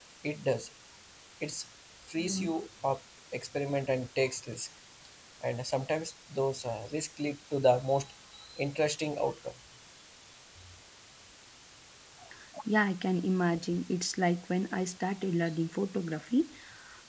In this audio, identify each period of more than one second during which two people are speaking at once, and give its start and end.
none

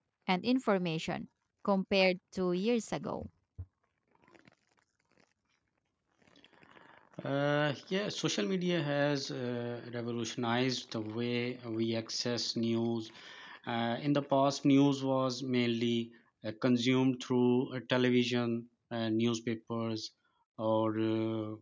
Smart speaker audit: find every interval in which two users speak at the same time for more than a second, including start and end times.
none

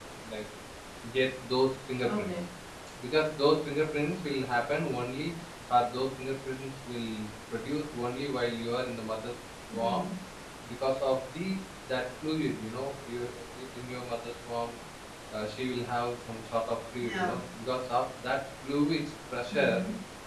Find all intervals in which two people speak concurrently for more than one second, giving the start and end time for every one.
none

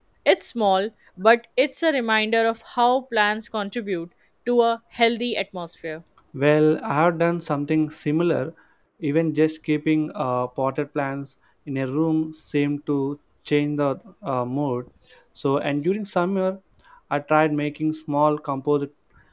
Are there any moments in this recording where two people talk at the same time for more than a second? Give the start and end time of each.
none

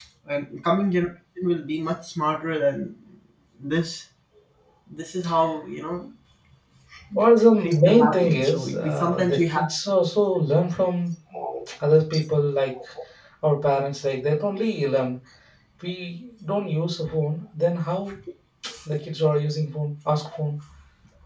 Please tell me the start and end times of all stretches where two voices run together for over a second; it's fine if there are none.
7.6-9.6

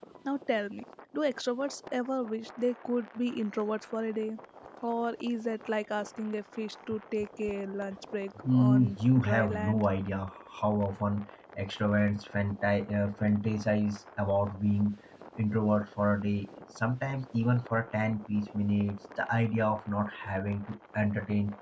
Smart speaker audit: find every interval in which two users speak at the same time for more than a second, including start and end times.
8.4-9.8

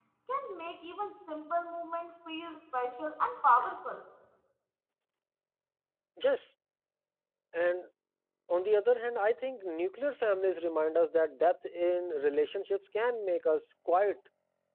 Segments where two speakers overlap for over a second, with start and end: none

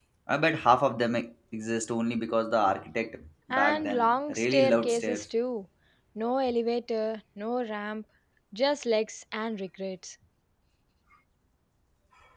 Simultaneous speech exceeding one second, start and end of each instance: 3.5-5.2

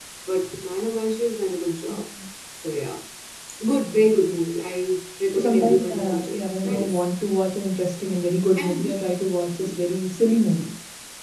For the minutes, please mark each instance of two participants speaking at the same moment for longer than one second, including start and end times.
5.3-7.1

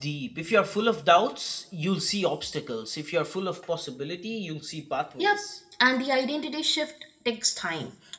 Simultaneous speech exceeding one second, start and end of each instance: none

